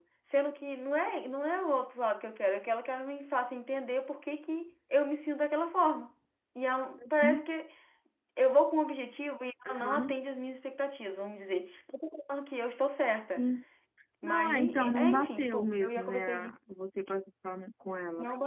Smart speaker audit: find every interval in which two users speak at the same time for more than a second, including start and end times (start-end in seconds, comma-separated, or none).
14.2-16.5